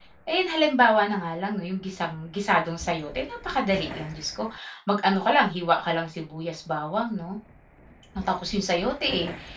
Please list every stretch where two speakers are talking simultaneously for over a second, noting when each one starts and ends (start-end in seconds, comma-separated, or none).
none